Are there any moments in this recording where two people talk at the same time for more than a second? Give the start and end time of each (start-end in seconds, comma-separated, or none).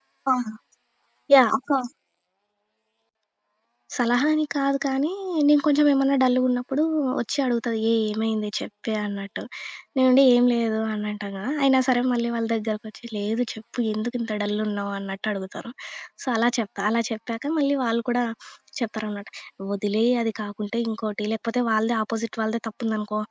none